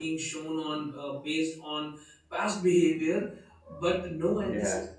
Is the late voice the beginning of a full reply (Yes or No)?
No